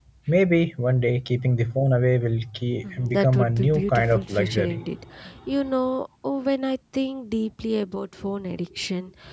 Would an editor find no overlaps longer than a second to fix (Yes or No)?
No